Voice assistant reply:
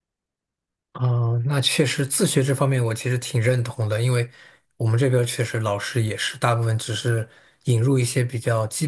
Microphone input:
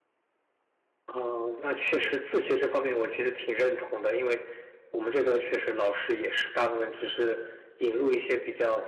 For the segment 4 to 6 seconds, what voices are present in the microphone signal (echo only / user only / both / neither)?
echo only